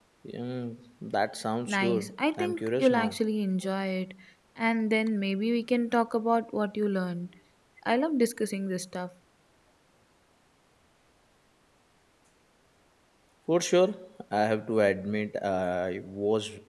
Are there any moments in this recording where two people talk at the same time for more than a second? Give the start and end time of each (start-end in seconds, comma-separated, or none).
1.7-3.2